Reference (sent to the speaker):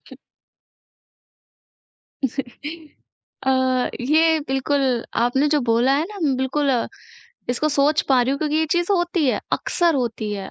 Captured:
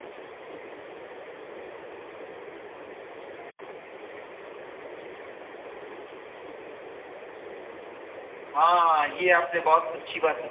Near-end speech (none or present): present